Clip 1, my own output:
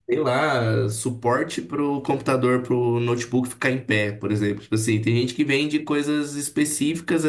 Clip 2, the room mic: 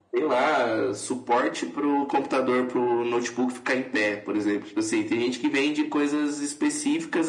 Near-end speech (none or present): none